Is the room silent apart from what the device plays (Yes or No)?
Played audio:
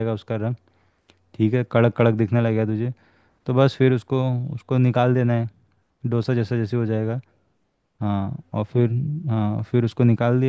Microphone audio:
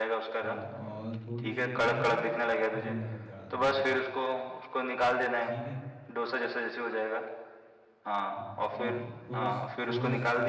No